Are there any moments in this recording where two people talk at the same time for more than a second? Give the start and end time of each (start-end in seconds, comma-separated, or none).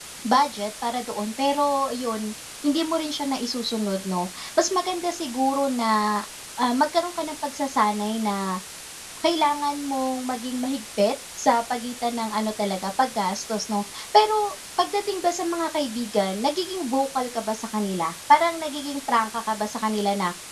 none